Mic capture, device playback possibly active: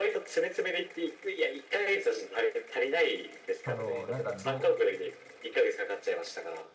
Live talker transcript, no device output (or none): あの、なんか、ど